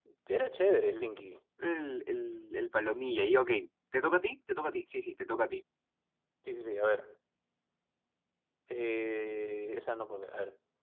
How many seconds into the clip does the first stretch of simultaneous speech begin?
none

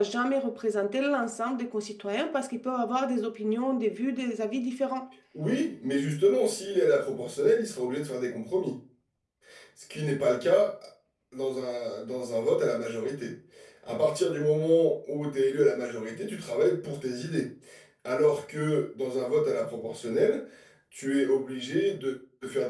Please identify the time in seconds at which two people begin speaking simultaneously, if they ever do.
none

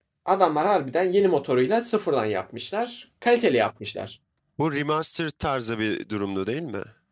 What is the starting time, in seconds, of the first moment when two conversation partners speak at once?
none

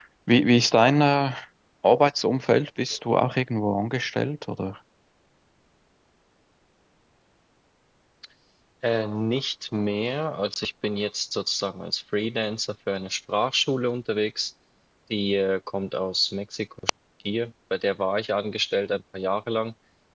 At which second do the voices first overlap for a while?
none

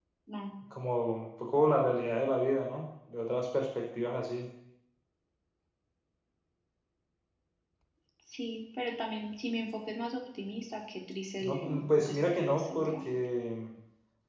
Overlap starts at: 11.4 s

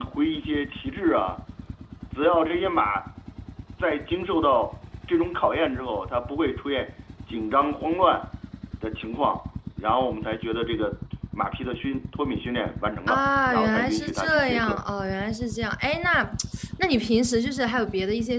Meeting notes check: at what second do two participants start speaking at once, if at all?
13.1 s

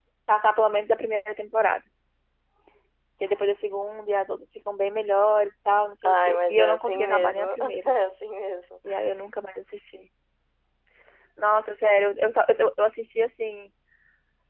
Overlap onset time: 6.0 s

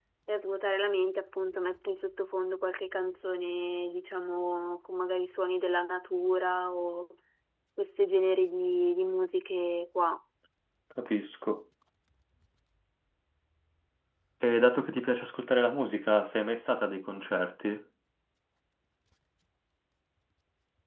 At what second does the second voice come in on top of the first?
none

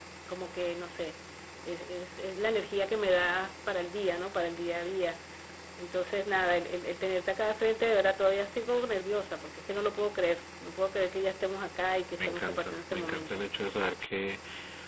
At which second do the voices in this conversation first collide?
12.2 s

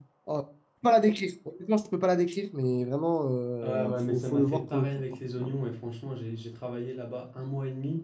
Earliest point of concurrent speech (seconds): 3.6 s

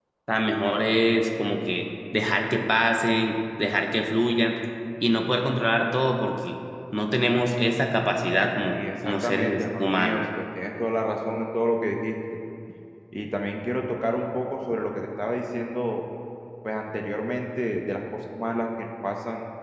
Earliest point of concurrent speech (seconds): 8.7 s

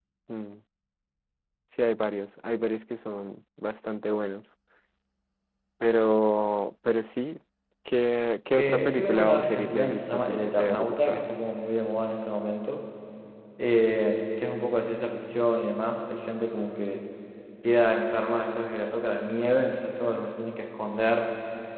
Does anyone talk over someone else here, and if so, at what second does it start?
8.6 s

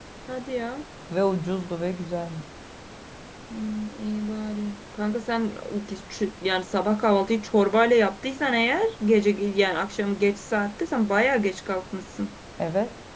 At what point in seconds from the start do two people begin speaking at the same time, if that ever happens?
none

